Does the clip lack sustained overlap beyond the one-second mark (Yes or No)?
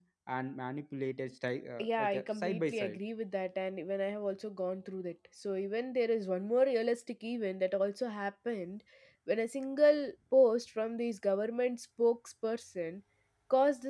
No